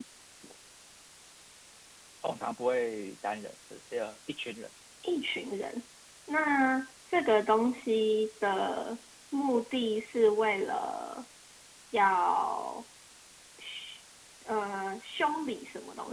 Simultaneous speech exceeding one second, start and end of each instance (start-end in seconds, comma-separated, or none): none